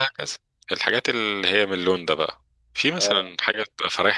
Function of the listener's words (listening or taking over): listening